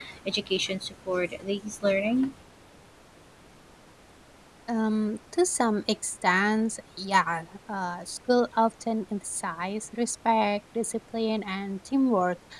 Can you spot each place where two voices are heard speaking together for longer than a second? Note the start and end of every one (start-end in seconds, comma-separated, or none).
none